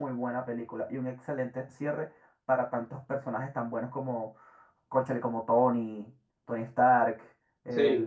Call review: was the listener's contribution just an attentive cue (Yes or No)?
Yes